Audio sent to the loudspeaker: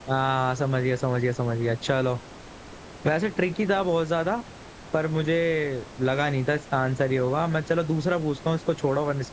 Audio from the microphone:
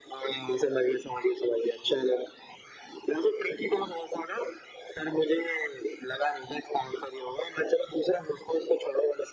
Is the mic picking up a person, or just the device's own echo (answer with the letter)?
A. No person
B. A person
A